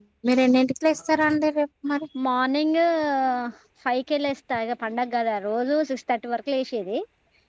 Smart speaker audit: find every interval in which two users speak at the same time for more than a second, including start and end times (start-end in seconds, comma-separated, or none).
none